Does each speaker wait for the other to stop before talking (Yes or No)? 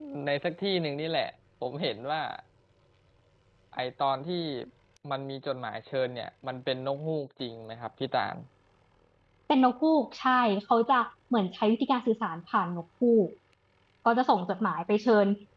Yes